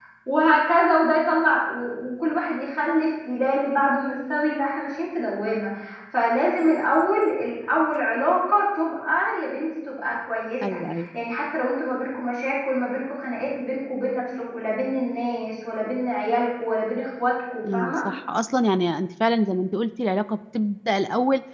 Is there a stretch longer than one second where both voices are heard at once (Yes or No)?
No